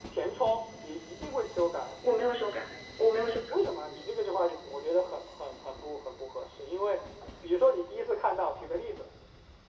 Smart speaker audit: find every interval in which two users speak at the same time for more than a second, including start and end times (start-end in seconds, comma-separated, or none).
none